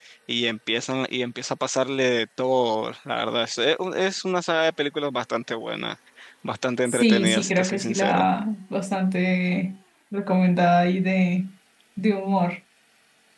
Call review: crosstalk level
present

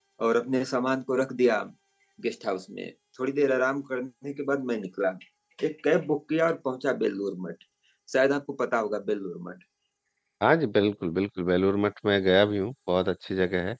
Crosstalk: none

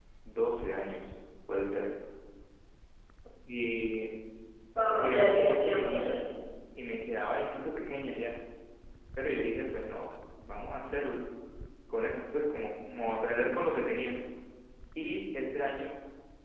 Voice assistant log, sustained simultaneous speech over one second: present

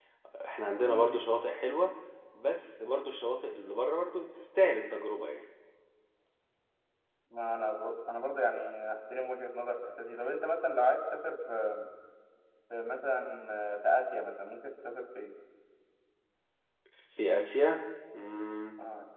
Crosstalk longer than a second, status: none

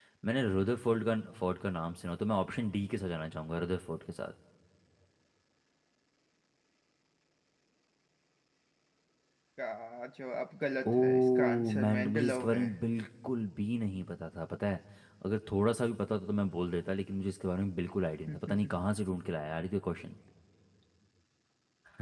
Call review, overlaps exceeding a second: present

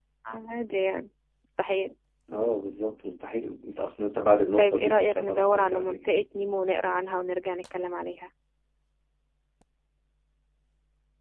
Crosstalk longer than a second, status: present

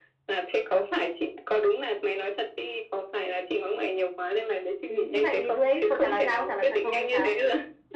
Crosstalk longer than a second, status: present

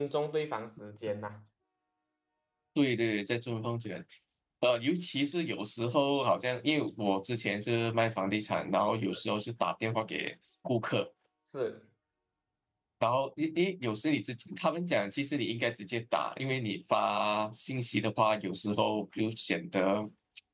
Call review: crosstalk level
none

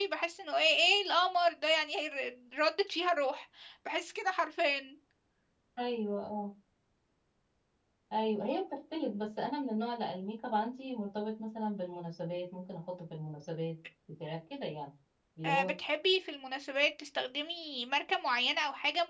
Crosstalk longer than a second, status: none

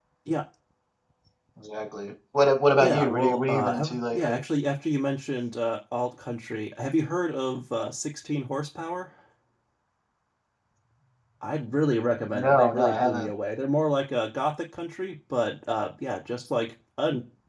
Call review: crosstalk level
present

